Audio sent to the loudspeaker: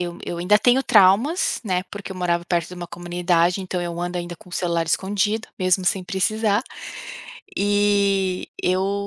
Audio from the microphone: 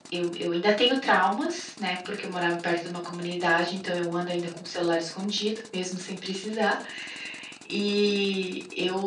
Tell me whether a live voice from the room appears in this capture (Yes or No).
No